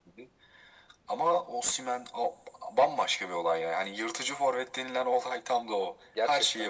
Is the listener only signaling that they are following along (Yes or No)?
No